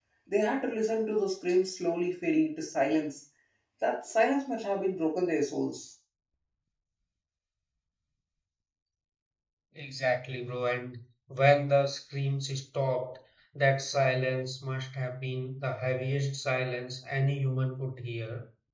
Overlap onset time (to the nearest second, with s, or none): none